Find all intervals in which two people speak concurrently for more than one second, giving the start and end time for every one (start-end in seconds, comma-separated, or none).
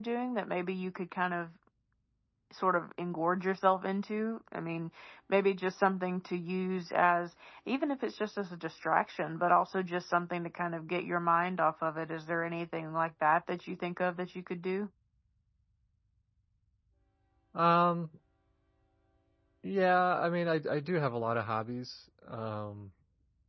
none